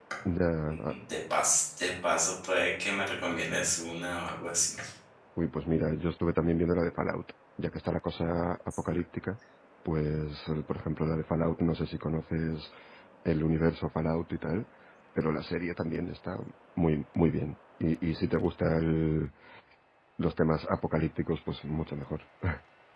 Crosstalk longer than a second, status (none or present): none